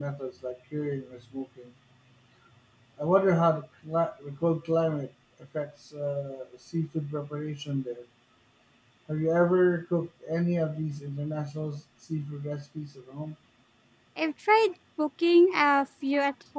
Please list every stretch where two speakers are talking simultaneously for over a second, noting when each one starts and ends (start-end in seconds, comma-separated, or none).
none